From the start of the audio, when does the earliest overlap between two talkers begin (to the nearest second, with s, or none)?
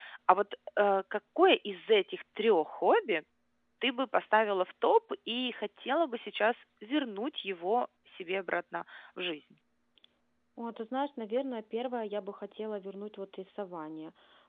none